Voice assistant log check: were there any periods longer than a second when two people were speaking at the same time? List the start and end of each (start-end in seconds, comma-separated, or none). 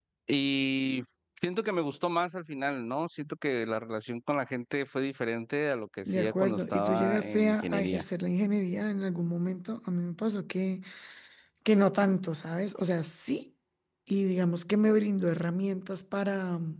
6.0-8.0